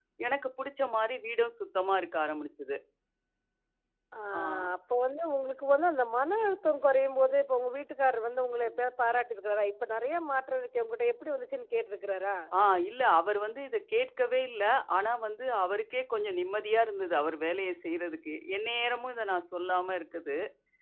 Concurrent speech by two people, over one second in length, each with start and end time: none

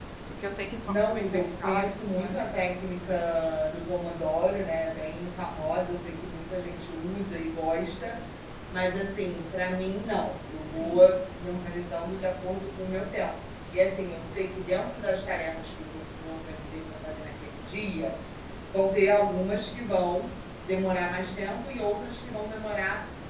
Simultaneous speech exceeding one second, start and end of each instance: 1.1-2.4

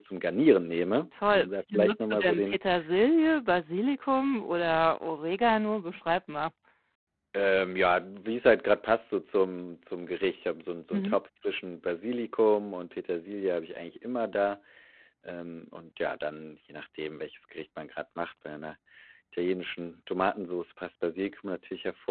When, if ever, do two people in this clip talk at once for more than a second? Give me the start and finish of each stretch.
1.3-2.6

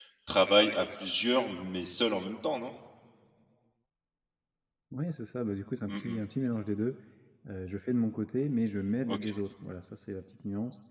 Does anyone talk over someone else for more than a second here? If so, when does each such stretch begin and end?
none

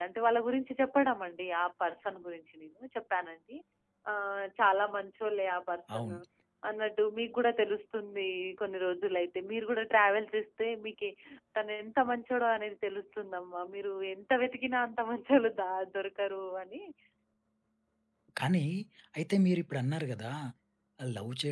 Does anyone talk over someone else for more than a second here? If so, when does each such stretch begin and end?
none

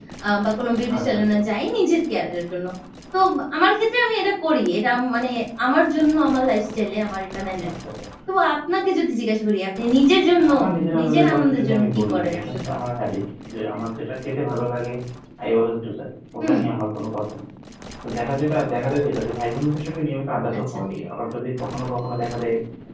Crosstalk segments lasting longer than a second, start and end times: 11.0-12.4

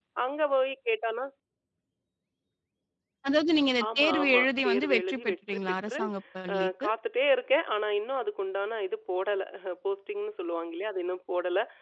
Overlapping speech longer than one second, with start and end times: 4.0-6.0

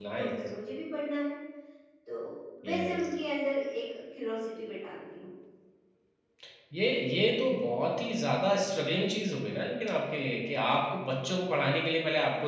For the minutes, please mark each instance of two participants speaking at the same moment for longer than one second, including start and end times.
none

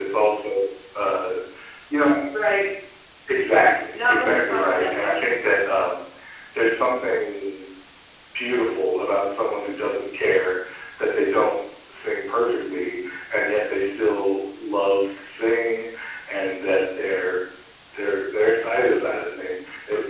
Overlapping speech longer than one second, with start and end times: 3.9-5.1

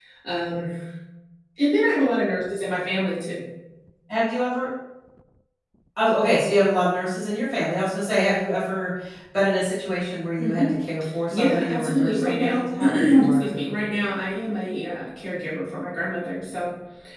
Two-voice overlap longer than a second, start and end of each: 11.3-13.5

